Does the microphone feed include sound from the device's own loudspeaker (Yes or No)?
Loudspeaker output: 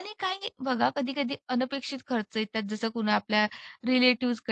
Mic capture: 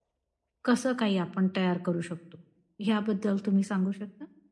No